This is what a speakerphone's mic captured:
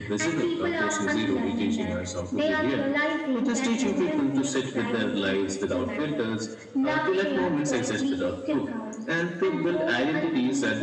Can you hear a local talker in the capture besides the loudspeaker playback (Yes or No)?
Yes